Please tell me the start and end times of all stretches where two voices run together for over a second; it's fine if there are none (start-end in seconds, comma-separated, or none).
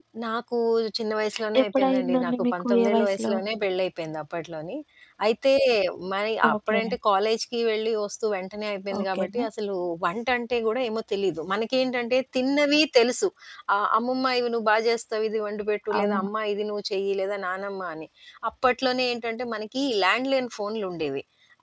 1.6-3.3